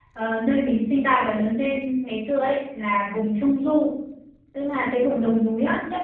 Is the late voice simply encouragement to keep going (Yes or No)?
Yes